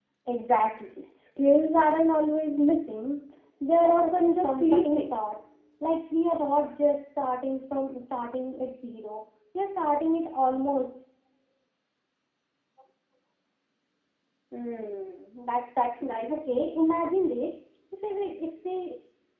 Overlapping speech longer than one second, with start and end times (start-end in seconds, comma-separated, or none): 3.8-5.1